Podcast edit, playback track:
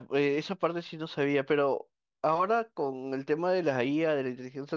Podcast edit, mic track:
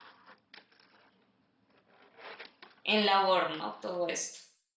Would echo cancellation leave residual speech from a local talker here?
Yes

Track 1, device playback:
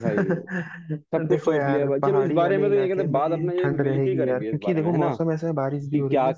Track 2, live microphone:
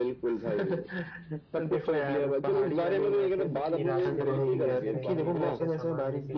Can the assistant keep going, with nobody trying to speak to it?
No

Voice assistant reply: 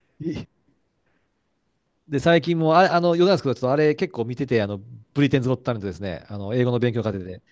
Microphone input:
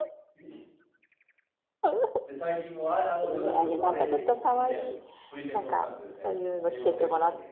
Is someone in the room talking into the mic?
Yes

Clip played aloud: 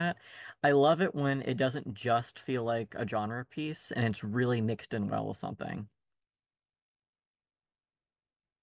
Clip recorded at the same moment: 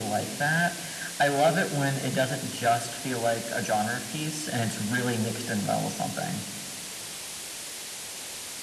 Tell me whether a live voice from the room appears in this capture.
No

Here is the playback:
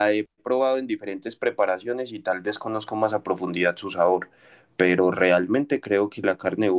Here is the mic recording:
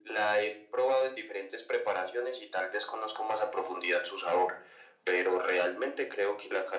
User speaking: No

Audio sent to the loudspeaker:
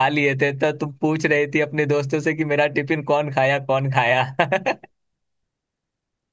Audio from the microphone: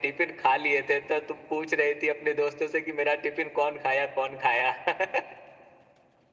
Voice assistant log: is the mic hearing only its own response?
Yes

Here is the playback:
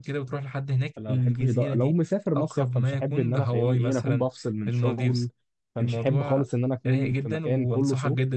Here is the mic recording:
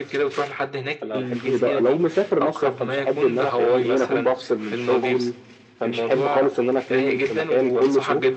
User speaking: No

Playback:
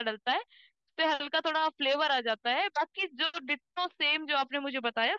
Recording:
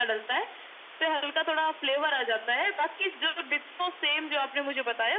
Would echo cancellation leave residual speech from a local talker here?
No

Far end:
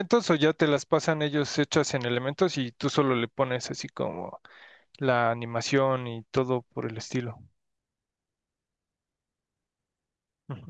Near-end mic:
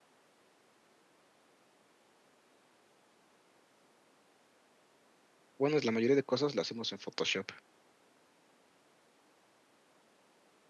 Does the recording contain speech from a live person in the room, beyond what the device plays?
Yes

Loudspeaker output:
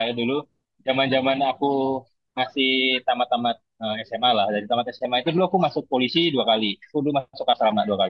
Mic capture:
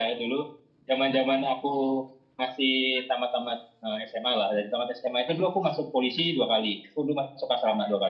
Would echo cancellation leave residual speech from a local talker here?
No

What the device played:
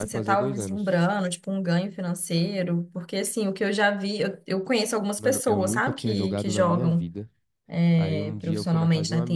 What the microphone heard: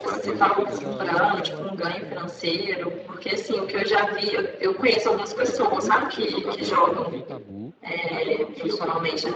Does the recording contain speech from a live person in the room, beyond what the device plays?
Yes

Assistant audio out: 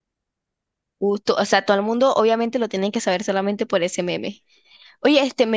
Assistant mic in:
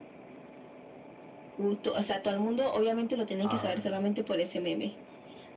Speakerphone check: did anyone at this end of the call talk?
Yes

